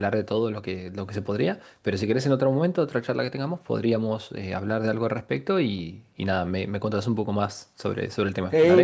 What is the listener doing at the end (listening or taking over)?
taking over